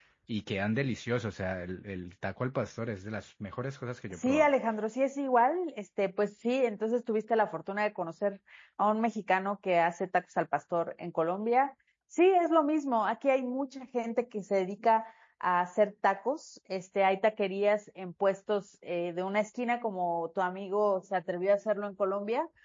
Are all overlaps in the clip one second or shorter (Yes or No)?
Yes